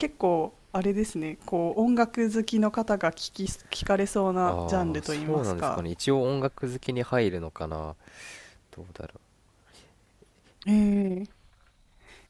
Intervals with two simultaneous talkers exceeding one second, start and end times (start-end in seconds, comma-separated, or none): 4.5-5.8